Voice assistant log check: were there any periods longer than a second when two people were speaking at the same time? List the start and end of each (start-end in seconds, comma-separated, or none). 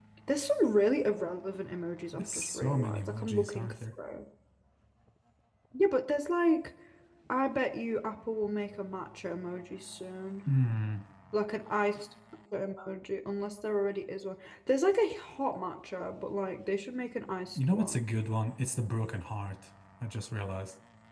2.1-3.7